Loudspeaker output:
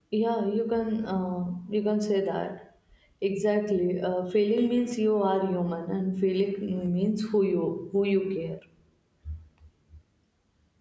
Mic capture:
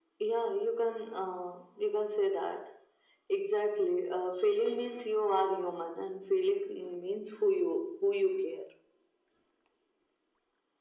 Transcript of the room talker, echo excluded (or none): none